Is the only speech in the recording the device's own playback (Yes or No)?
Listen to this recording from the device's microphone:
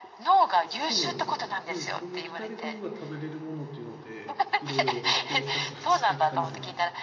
No